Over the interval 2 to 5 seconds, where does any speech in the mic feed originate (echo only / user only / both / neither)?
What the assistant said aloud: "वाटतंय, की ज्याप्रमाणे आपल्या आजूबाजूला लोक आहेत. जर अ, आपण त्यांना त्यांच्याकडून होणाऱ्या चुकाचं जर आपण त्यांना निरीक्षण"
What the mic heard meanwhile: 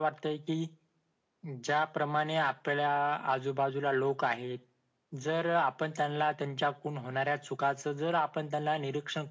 echo only